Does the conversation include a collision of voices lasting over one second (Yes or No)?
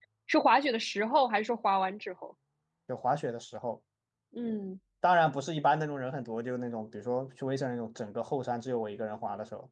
No